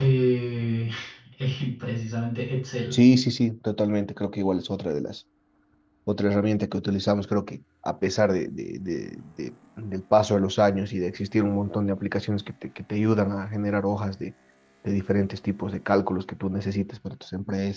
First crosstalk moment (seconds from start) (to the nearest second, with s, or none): none